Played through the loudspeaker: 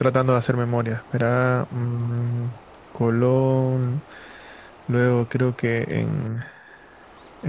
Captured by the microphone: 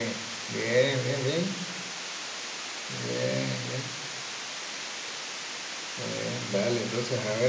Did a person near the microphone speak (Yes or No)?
Yes